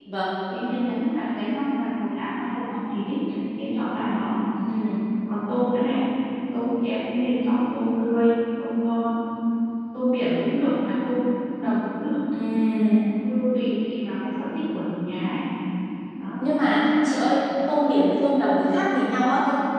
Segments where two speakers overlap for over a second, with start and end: none

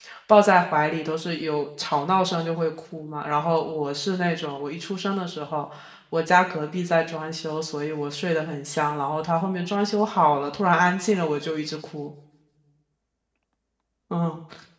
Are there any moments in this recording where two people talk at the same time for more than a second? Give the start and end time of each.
none

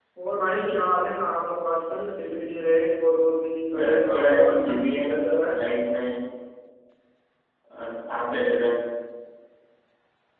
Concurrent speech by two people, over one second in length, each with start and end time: 3.8-5.1

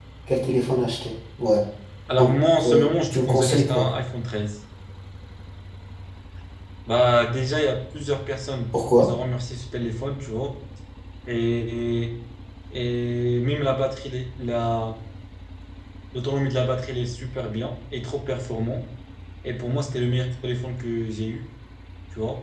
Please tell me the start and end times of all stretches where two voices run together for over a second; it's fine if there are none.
2.2-3.9

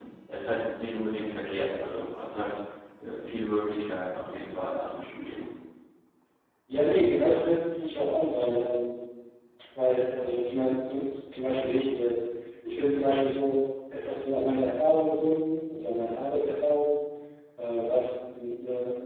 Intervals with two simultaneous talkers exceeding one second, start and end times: none

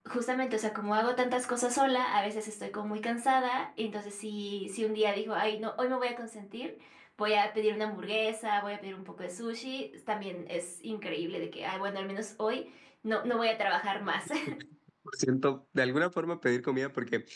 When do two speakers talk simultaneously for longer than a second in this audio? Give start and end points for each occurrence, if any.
none

